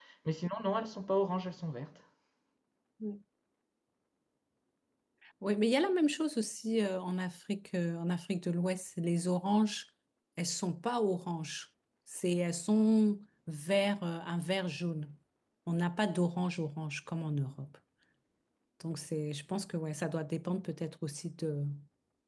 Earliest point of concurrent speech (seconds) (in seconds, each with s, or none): none